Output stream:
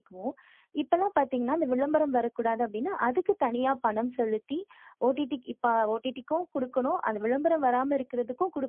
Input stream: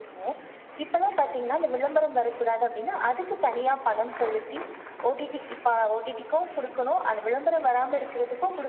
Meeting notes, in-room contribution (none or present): none